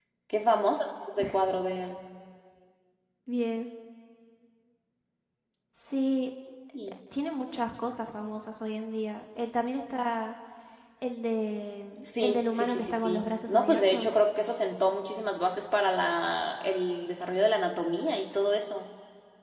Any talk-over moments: Yes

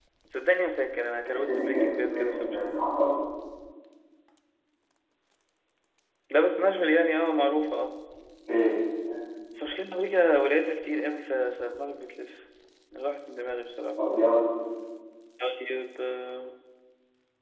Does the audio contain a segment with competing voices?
Yes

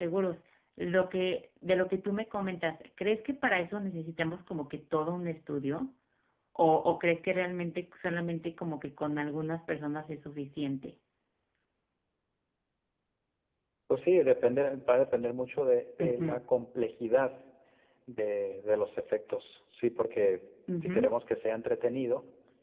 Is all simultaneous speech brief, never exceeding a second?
Yes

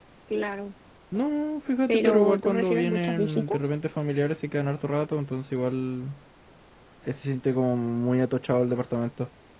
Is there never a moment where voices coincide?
No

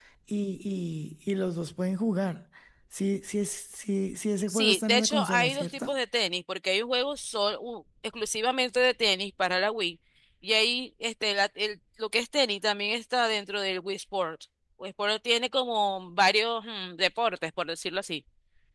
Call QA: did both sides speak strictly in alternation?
No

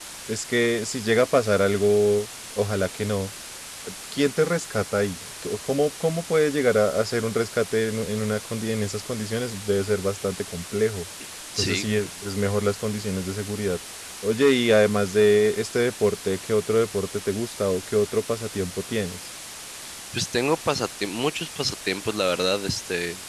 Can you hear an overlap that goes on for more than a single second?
No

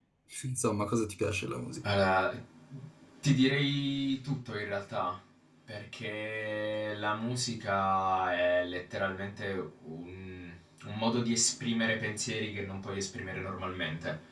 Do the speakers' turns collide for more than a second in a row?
No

